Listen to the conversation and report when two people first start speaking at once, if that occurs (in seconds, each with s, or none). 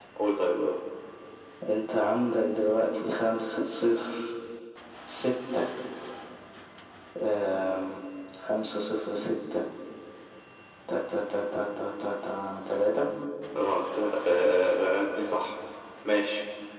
none